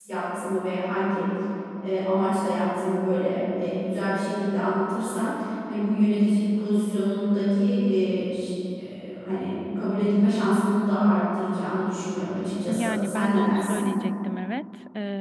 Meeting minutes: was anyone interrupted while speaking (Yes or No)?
Yes